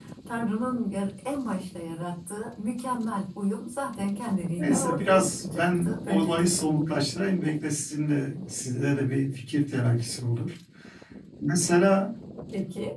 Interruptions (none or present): present